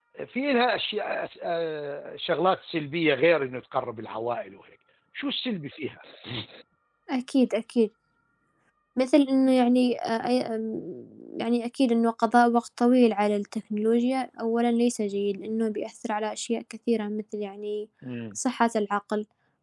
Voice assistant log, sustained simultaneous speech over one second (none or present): none